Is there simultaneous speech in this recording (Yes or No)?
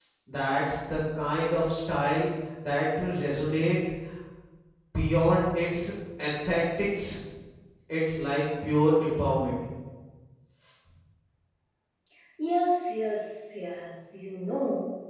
No